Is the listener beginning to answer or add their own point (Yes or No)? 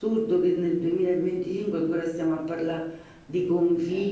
No